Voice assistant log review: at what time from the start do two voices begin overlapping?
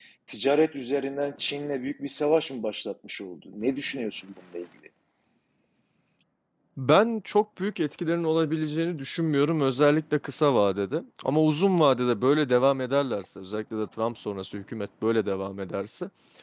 none

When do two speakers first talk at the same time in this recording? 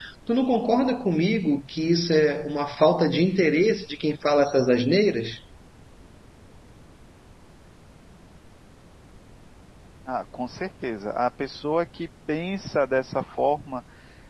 none

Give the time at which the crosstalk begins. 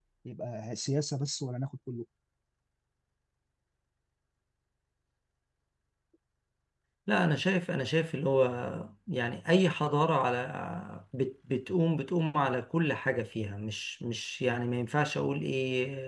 none

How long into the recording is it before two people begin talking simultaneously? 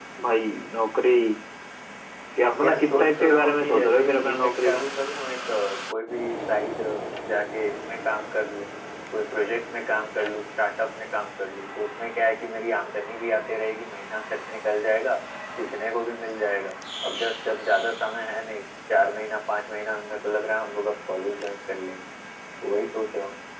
2.6 s

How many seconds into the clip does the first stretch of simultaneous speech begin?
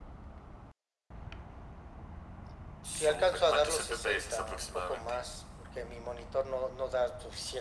3.0 s

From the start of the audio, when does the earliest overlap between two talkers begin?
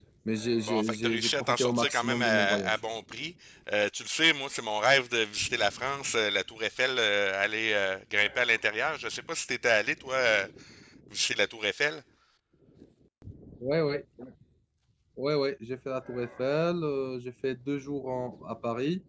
0.7 s

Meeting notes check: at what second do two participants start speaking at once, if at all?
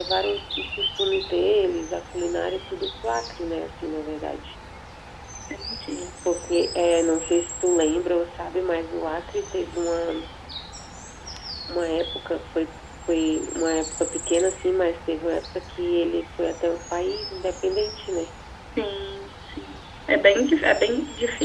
none

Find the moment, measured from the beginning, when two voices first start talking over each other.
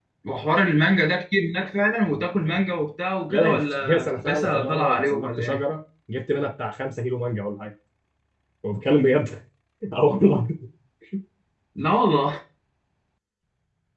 3.3 s

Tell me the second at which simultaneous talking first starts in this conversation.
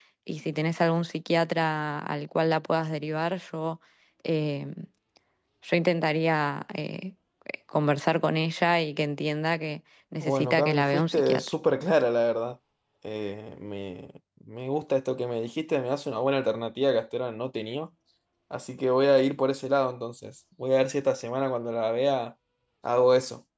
10.2 s

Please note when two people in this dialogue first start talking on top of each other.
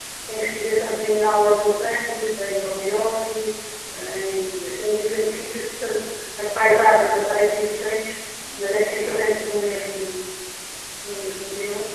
none

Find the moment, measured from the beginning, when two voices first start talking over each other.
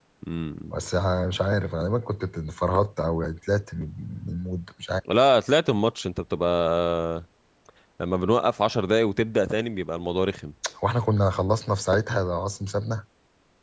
none

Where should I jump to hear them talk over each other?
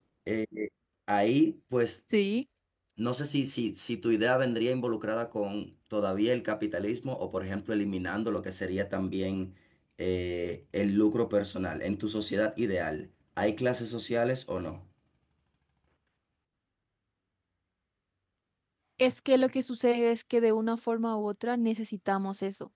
none

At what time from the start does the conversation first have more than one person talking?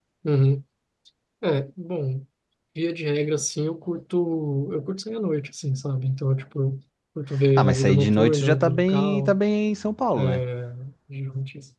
7.6 s

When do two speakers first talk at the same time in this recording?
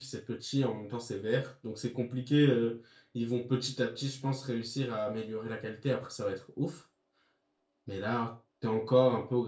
none

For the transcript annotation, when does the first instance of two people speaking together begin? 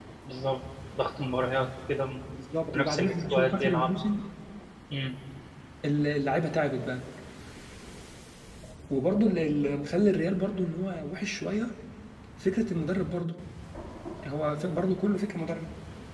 2.7 s

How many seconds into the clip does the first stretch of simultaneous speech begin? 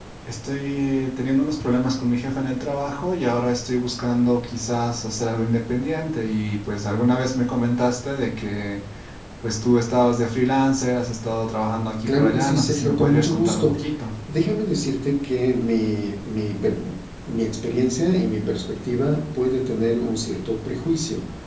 12.1 s

